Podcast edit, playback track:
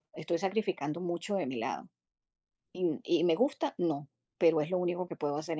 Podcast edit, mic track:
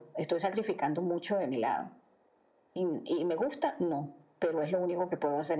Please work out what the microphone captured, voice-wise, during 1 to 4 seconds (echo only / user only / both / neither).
echo only